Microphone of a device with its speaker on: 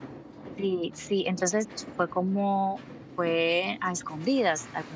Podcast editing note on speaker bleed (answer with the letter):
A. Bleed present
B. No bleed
B